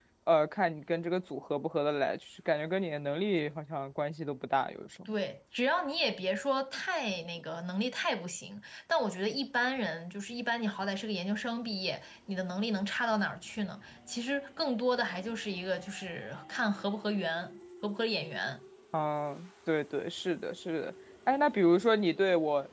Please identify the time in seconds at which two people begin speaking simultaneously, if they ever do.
none

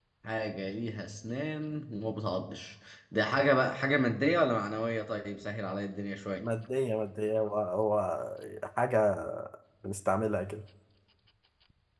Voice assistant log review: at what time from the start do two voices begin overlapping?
none

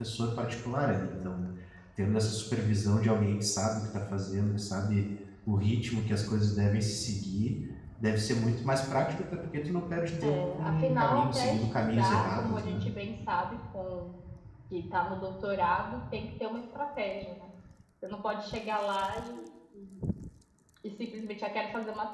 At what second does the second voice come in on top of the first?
10 s

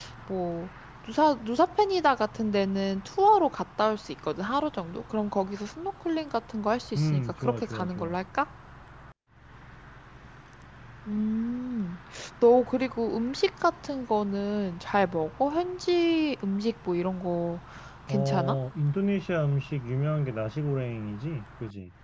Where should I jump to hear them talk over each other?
7 s

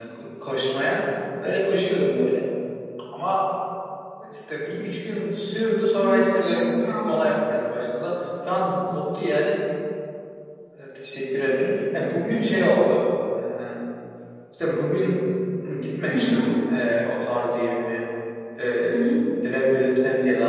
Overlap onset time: 6 s

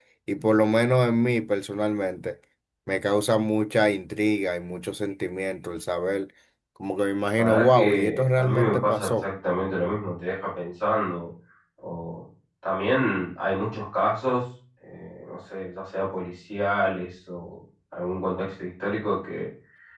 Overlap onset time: 7 s

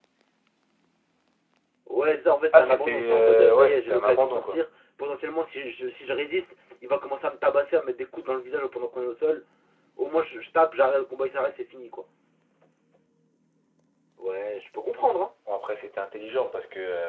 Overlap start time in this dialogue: 3 s

